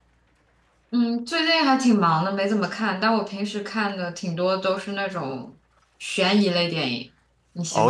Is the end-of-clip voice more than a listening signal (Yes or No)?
Yes